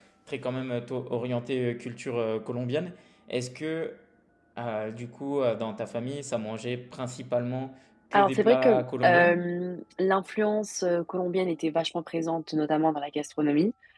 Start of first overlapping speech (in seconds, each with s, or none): 8.1 s